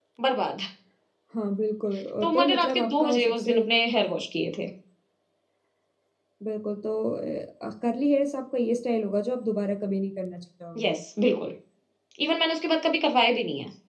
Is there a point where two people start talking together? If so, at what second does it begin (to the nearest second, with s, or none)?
2 s